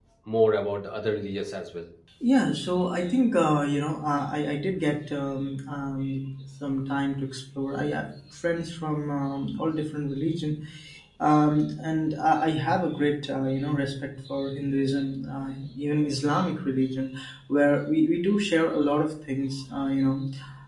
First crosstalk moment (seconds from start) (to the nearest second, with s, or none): none